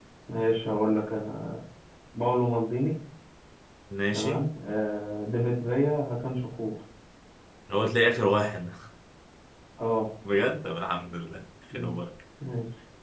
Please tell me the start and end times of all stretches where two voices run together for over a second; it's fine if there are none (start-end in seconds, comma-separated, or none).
none